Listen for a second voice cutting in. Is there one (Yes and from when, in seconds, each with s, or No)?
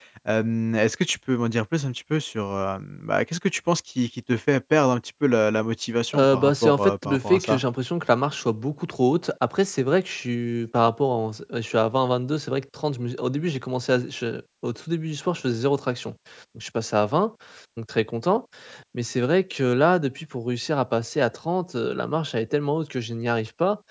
Yes, from 6.1 s